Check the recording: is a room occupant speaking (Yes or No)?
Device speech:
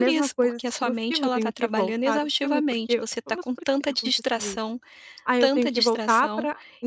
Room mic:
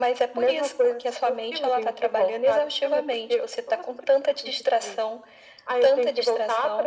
No